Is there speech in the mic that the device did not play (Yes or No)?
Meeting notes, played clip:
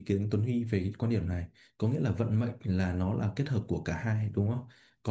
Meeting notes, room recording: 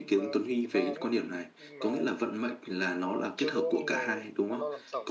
Yes